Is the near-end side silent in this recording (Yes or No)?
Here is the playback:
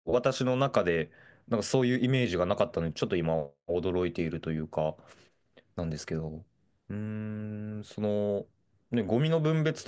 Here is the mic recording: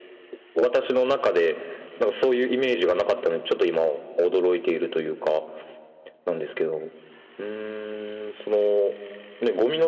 Yes